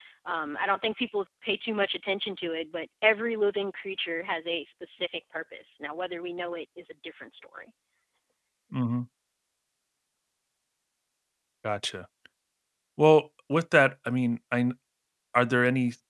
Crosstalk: none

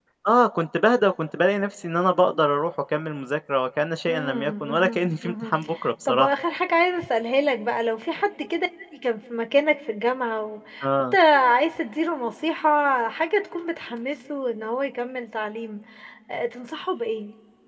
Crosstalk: present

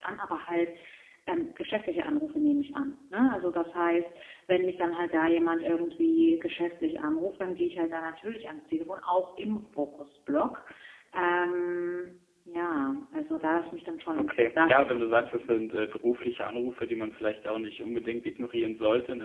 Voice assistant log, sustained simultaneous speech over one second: present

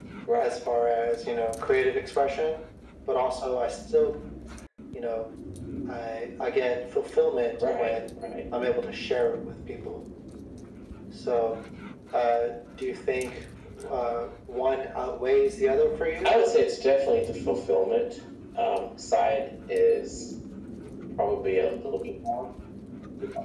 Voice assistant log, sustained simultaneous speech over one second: none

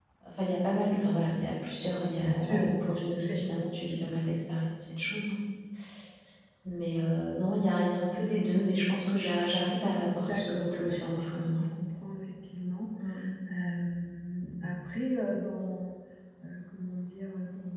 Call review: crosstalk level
present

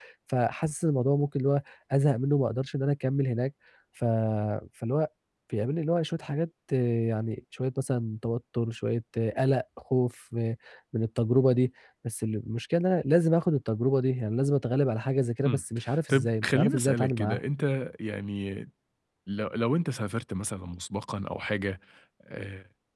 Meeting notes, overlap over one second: present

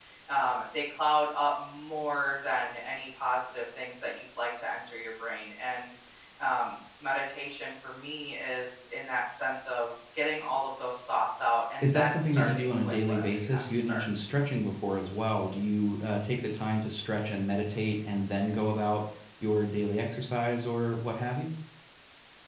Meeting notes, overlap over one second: present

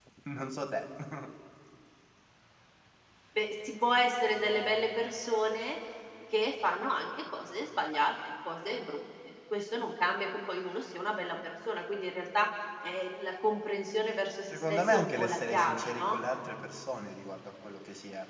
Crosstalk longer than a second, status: present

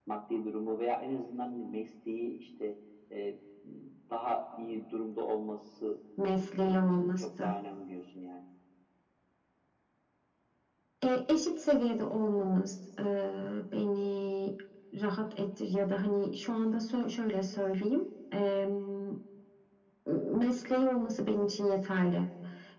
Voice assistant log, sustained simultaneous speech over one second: present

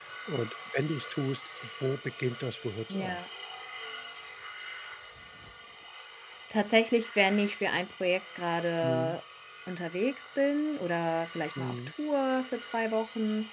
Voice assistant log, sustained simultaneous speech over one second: none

